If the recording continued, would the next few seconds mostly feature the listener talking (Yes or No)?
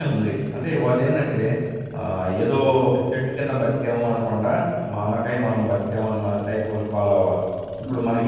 No